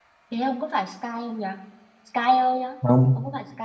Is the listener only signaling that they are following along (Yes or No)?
No